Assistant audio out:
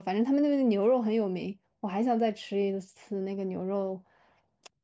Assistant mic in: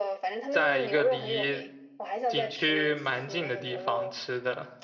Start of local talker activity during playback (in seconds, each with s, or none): 0.5 s